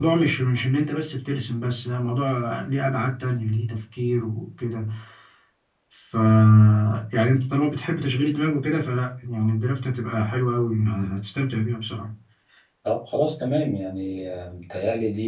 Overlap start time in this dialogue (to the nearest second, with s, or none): none